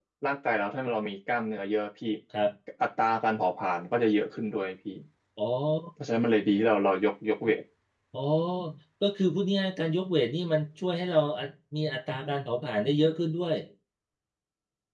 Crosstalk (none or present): none